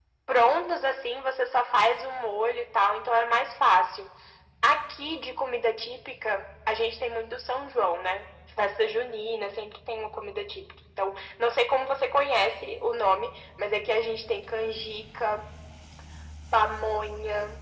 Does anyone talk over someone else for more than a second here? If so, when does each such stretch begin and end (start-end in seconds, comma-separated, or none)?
none